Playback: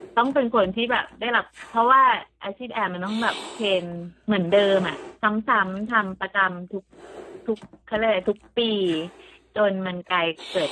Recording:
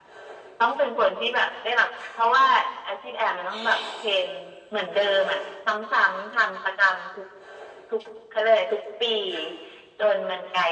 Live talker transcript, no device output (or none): none